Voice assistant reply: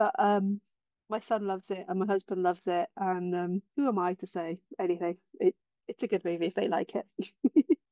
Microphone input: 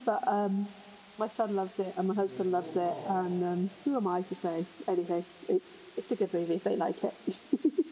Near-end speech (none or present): present